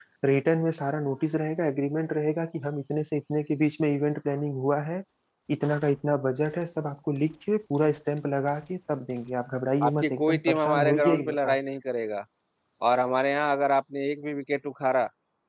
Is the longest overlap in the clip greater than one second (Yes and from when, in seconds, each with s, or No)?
Yes, from 9.8 s